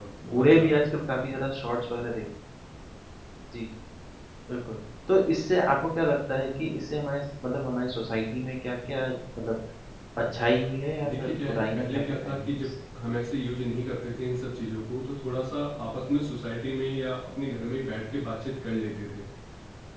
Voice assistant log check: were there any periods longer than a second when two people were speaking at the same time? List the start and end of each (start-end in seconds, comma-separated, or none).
11.1-12.6